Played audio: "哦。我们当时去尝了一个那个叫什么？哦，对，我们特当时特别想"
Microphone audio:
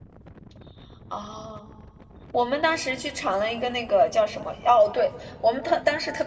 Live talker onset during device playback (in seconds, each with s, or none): none